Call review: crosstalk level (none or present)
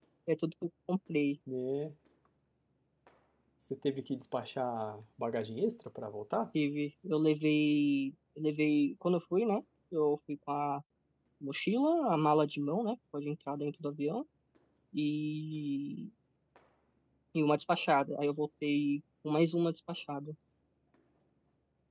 none